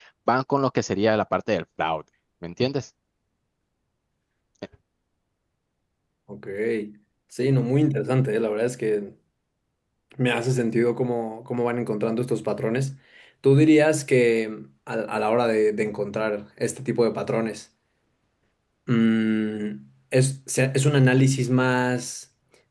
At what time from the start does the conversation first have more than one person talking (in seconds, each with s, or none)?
none